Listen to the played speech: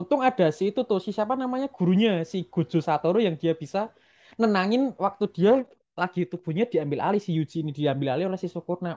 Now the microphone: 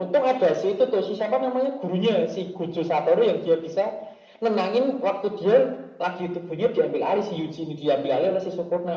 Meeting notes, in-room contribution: none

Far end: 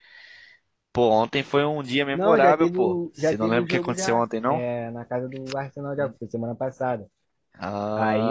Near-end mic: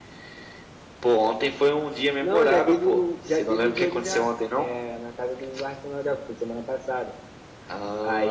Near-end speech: none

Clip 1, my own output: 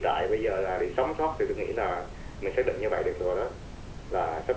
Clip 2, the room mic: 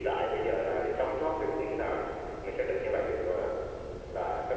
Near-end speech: none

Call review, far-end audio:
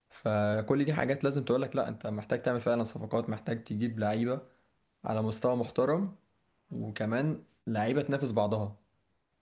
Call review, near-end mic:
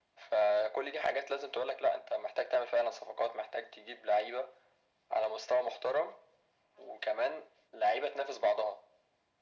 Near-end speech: none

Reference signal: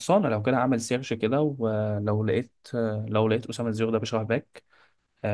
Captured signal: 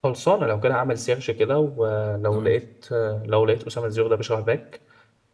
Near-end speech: present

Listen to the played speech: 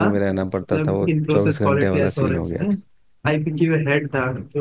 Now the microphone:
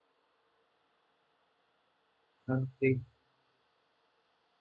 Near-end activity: present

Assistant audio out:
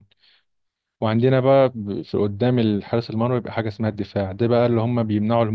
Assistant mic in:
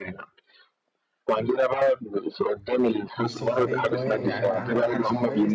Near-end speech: present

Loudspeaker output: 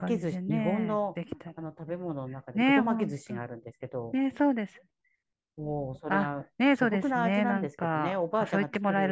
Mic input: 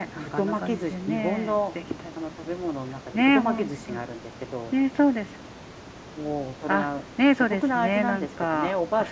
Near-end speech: none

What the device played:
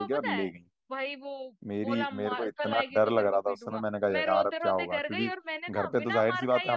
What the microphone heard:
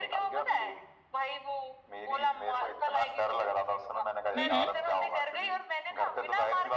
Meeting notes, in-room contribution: present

